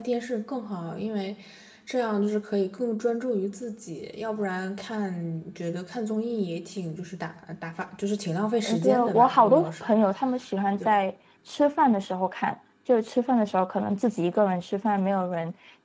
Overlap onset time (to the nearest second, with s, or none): 9 s